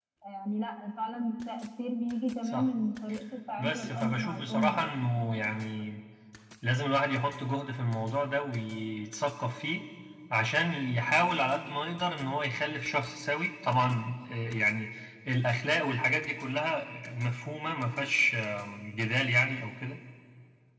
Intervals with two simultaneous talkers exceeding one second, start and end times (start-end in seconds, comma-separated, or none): 3.6-5.1